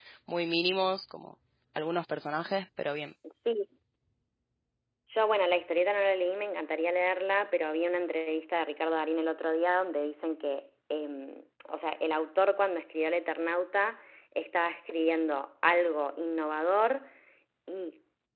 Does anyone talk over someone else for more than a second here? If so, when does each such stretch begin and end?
none

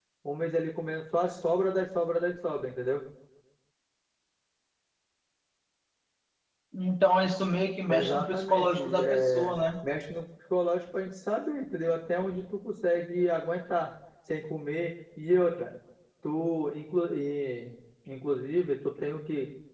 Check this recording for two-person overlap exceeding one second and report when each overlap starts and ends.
7.9-9.5

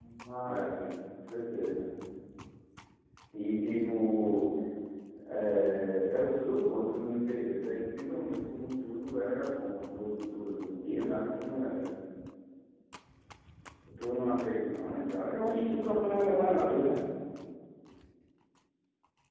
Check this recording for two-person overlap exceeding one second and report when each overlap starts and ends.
15.5-16.8

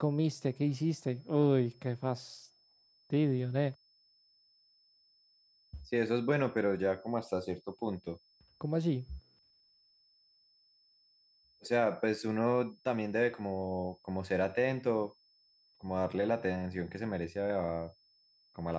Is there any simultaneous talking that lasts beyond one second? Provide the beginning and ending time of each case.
none

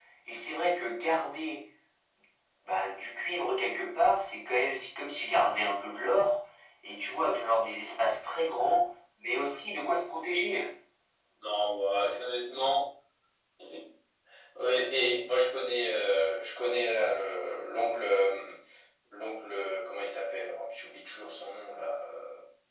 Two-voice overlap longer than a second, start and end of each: none

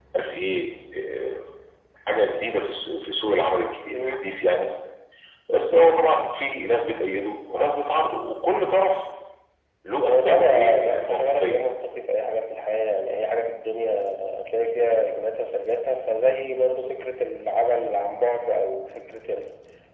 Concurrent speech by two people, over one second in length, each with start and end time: 10.1-11.7

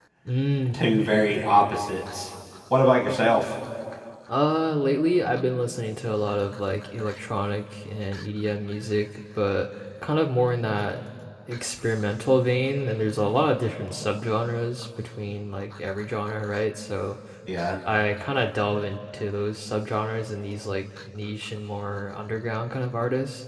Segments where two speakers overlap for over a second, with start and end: none

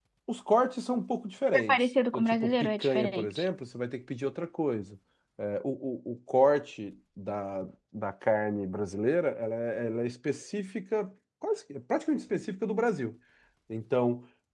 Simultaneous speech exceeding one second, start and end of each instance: 1.5-3.5

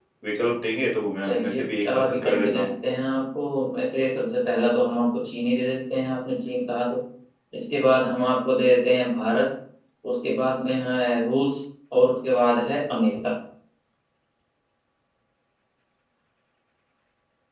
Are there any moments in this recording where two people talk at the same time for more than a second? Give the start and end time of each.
1.3-2.7

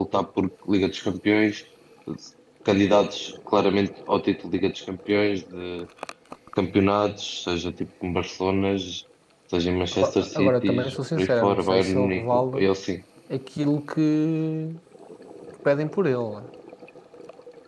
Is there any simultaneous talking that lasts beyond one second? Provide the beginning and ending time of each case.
9.9-12.7

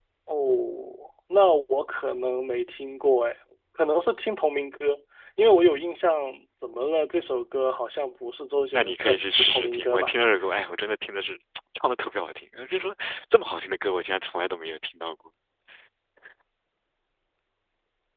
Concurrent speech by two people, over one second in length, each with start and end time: 8.7-10.1

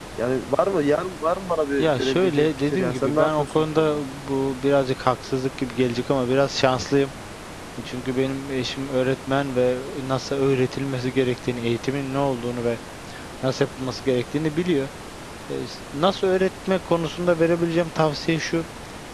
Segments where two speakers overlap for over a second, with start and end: 1.8-4.0

